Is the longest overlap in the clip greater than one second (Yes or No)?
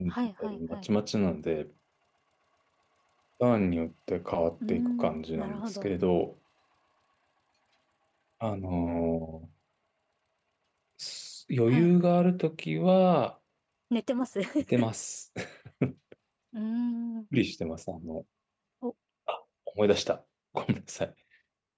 Yes